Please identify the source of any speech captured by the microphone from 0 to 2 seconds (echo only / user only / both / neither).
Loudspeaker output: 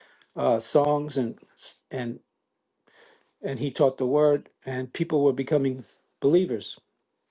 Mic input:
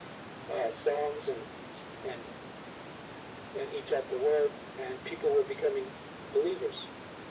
echo only